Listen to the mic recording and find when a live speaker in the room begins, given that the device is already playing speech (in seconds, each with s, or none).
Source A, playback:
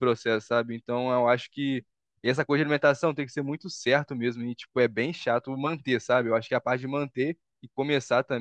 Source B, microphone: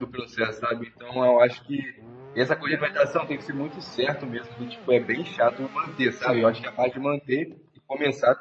6.2 s